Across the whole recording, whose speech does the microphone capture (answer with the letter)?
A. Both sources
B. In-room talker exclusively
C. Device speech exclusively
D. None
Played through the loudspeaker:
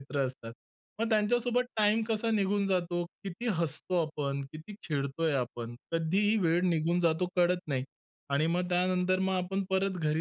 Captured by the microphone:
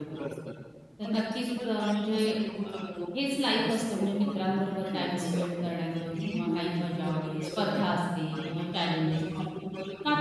A